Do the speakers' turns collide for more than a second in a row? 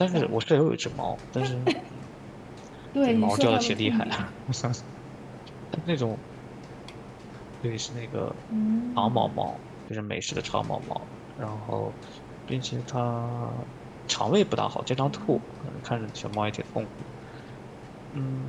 Yes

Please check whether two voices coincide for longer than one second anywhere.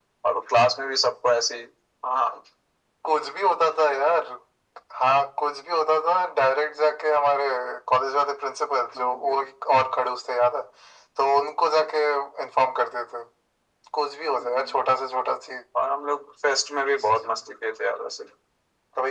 No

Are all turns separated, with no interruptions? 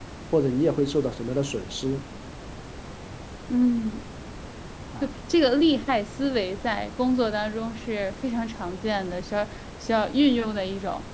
Yes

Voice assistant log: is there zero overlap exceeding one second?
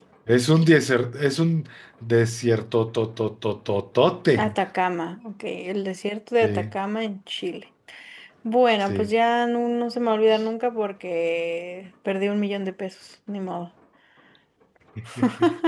Yes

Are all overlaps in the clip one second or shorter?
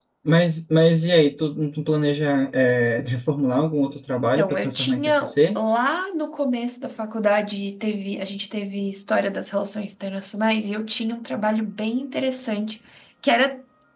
No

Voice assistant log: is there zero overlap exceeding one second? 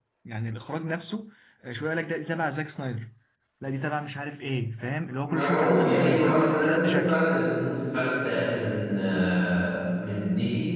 No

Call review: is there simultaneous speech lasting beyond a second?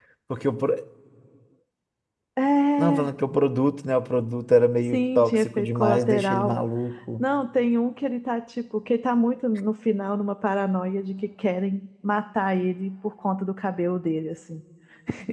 Yes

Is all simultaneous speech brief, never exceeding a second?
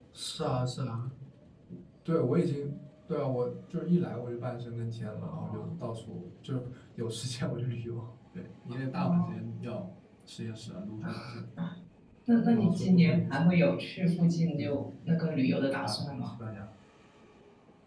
No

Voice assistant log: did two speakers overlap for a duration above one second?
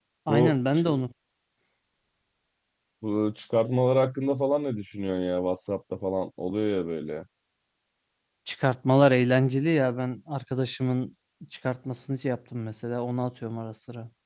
No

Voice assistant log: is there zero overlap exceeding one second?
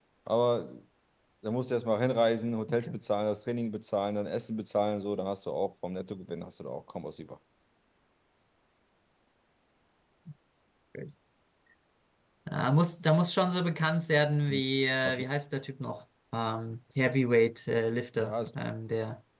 Yes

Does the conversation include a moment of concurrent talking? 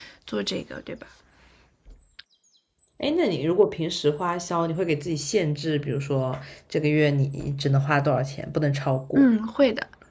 No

